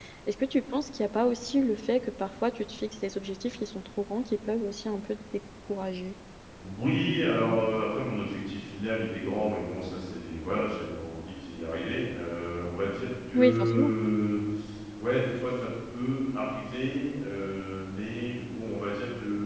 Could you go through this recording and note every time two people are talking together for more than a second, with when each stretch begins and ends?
none

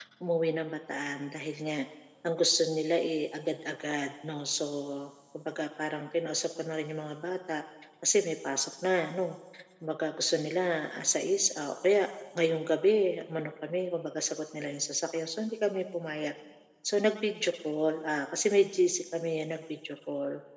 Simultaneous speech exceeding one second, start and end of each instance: none

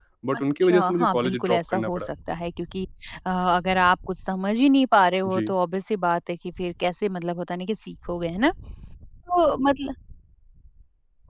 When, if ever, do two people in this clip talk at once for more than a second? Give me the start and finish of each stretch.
0.6-2.1

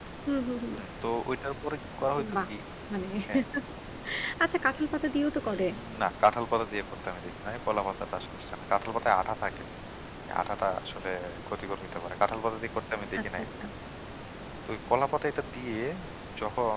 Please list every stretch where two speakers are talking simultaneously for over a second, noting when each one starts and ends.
none

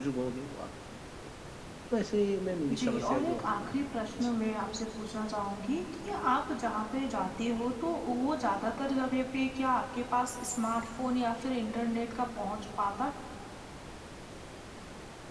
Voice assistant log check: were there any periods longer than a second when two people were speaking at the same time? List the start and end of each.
2.8-4.1

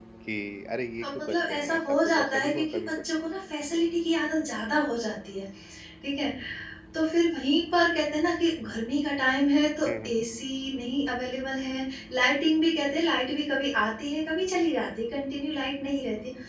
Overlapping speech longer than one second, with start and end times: 1.0-3.1

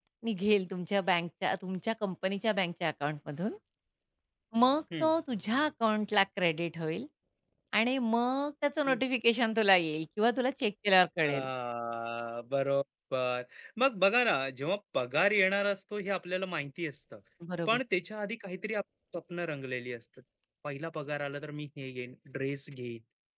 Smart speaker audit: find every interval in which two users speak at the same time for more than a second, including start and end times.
none

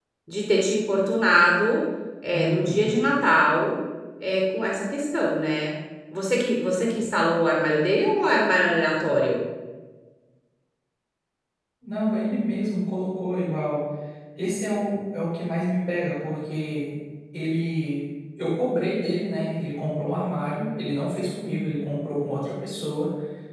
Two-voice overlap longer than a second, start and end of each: none

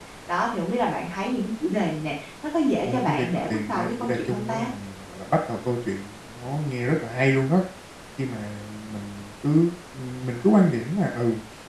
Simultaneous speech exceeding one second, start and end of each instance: 2.9-4.7

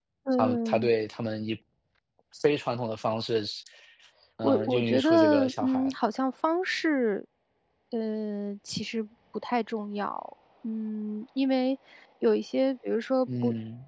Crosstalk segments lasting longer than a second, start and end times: 4.4-5.9

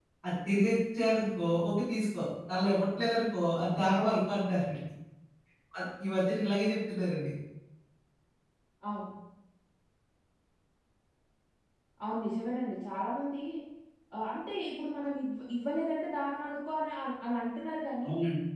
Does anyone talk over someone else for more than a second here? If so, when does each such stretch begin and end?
none

